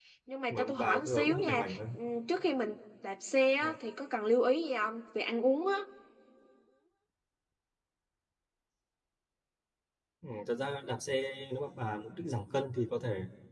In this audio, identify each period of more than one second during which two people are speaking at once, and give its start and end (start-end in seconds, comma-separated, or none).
0.5-1.8